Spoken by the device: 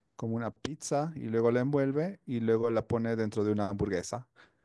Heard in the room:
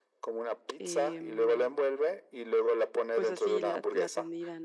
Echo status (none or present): present